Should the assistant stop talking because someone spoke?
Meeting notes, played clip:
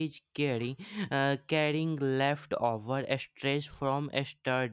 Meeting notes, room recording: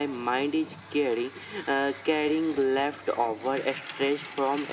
No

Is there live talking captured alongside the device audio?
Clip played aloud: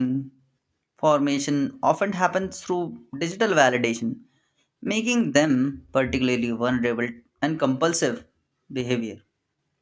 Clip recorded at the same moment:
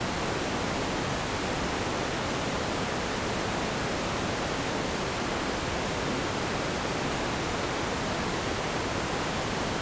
No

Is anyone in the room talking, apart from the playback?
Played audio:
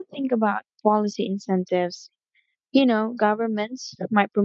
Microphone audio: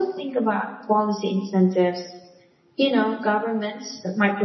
No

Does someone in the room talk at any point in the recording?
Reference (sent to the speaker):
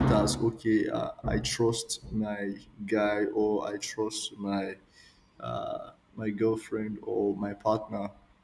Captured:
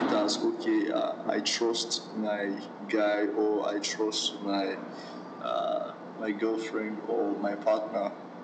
No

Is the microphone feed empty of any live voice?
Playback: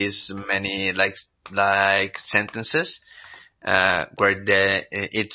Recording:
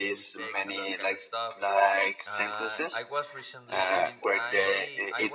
No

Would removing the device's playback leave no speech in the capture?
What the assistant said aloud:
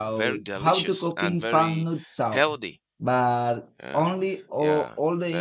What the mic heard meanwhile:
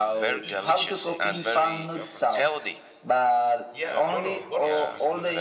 No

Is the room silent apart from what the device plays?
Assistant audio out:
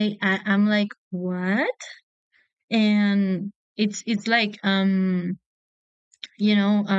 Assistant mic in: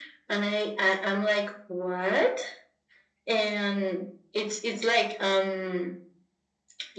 Yes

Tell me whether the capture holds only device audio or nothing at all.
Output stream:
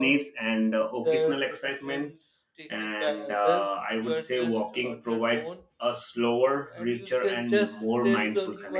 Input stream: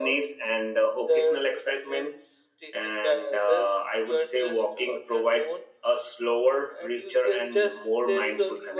Yes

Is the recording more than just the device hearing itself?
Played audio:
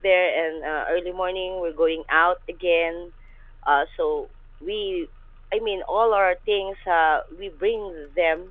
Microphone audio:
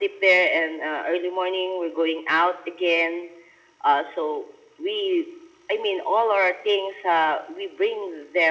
No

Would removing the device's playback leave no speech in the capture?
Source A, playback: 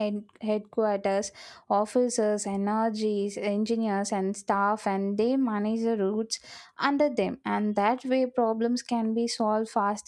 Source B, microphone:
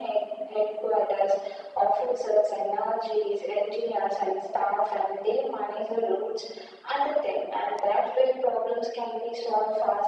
Yes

